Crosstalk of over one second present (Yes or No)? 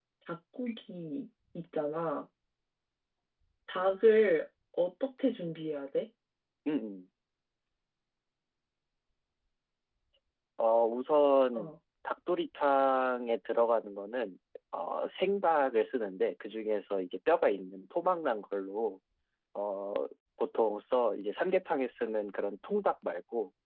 No